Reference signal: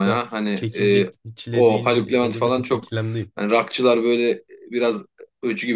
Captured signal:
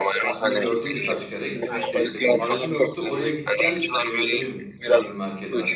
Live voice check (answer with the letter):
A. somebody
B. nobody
A